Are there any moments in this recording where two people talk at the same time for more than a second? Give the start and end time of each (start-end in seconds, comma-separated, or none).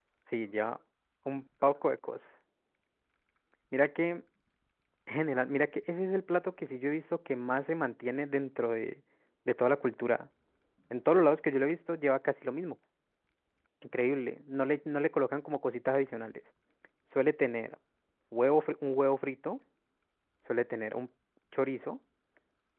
none